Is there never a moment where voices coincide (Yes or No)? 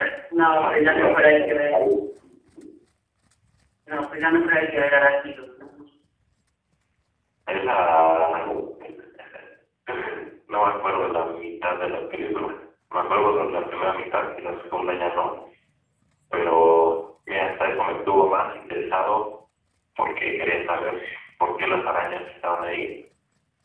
No